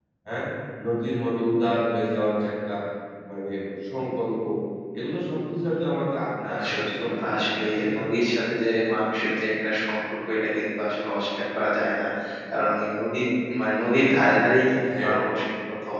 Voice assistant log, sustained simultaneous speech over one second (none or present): present